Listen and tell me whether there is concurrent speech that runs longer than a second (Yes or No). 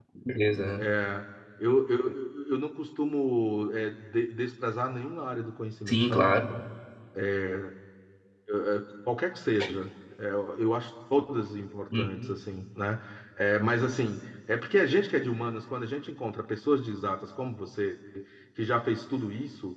No